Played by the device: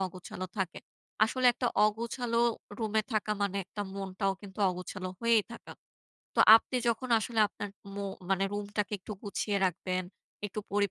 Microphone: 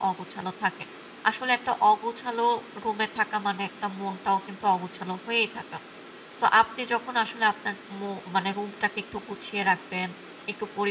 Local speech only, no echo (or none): none